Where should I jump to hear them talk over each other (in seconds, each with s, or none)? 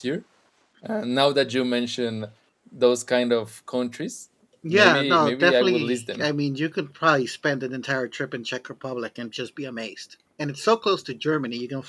4.6 s